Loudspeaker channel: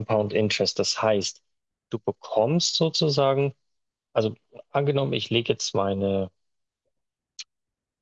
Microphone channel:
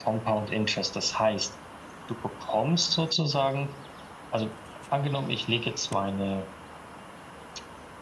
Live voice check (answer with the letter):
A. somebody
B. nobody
B